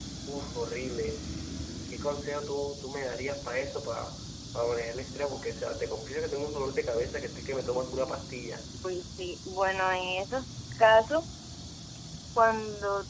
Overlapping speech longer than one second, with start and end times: none

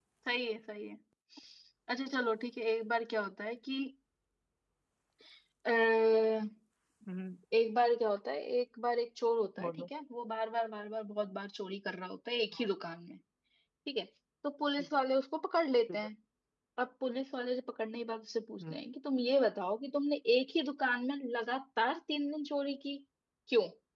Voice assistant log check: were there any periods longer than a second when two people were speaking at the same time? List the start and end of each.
none

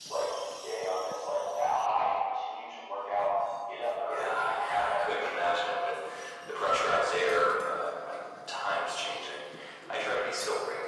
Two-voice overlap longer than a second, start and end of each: 4.0-5.6

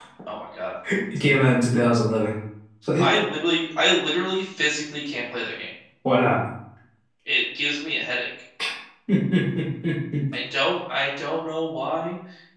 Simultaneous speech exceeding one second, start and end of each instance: none

